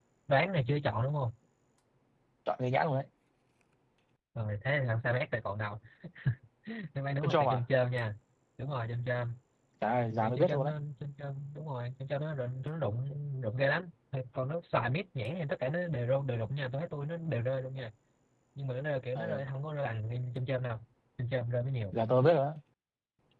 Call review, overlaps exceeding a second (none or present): none